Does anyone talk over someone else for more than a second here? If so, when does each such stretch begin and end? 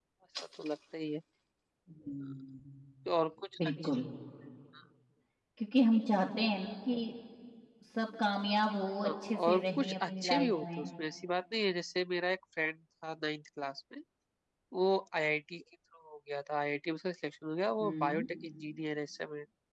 9.1-10.9

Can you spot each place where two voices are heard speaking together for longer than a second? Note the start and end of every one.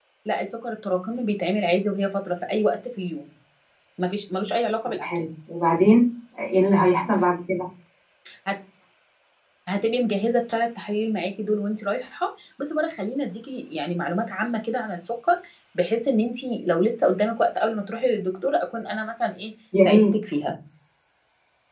none

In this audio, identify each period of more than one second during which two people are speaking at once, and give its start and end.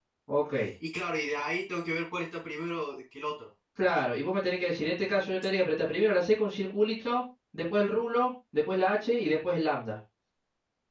none

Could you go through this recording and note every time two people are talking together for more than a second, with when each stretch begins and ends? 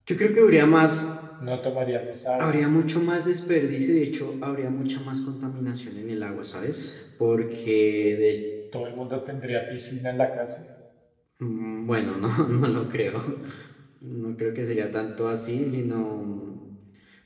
none

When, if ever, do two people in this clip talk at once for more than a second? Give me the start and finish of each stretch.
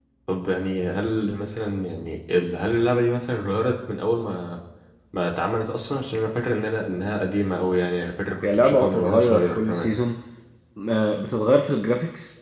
8.4-9.9

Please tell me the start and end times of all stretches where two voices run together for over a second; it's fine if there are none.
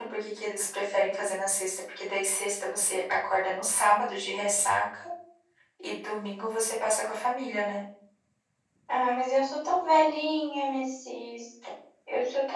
none

